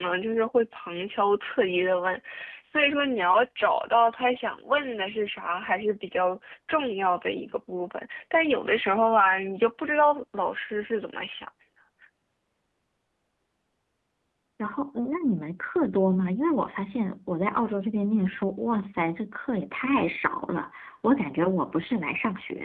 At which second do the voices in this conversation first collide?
none

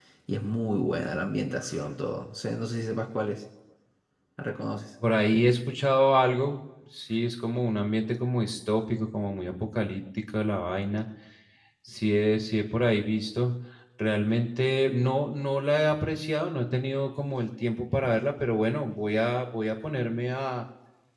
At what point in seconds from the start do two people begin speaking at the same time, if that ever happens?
none

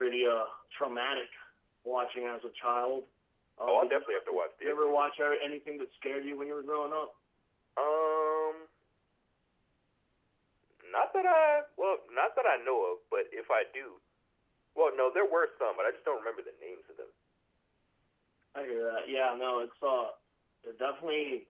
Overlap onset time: 3.7 s

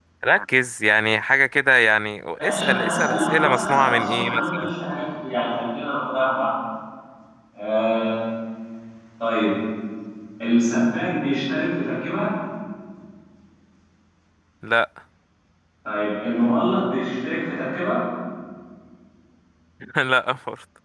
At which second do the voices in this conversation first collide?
2.4 s

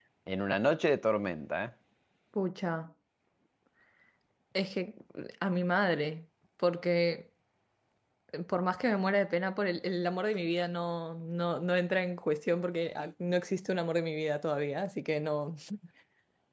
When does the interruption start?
none

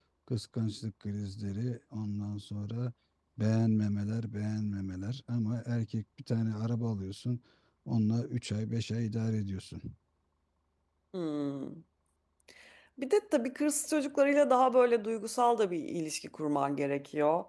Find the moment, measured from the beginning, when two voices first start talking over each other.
none

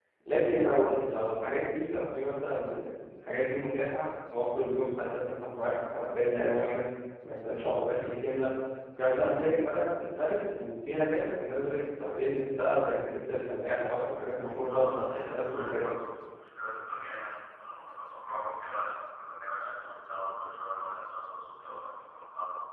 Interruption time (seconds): 14.6 s

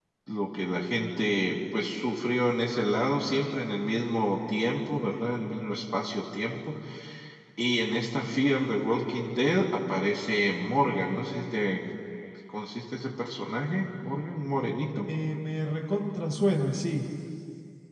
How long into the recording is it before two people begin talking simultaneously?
none

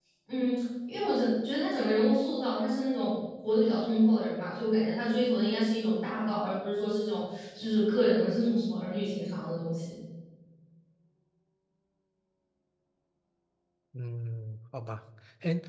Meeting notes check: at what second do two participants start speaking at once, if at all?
none

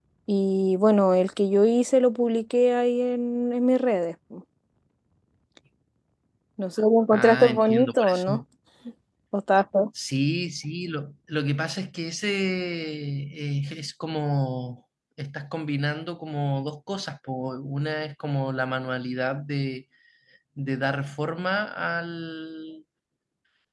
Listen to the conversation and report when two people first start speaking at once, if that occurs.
7.1 s

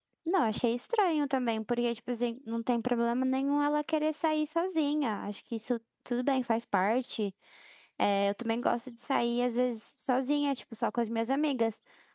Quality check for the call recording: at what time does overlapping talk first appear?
none

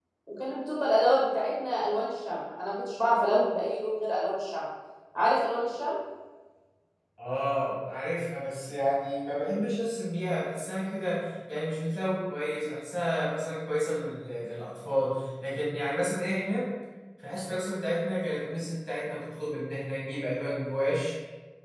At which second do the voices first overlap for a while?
none

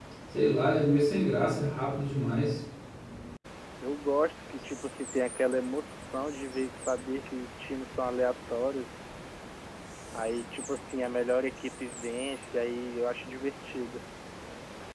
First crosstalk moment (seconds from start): none

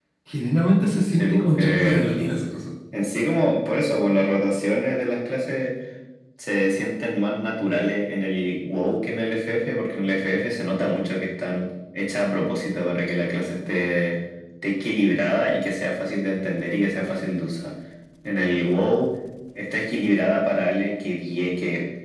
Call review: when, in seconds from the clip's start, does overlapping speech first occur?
0.8 s

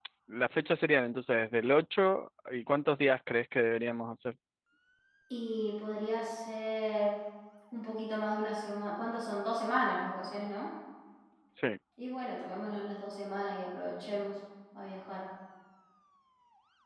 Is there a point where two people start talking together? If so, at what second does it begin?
none

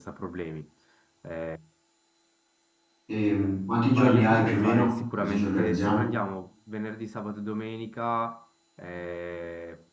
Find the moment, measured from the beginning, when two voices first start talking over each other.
3.9 s

